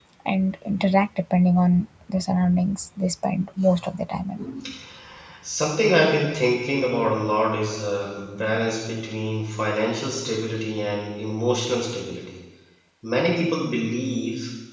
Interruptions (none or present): none